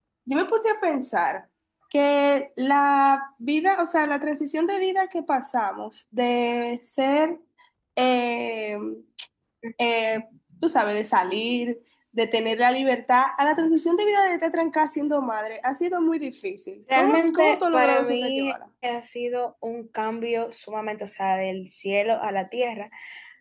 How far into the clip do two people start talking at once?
16.9 s

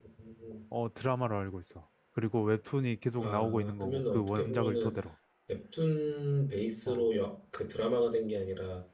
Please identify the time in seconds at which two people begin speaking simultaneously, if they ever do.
3.2 s

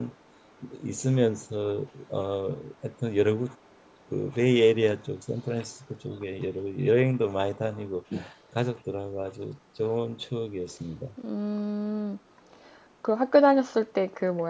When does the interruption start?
none

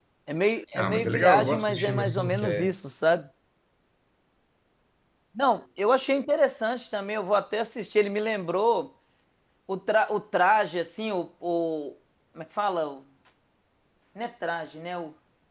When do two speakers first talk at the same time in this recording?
0.7 s

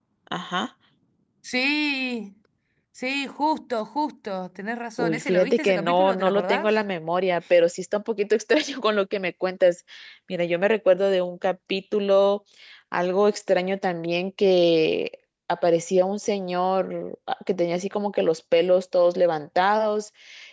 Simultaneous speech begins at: 5.0 s

